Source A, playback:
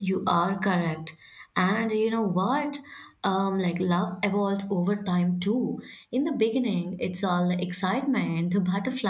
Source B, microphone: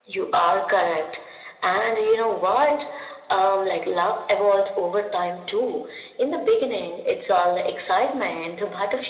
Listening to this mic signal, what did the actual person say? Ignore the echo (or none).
none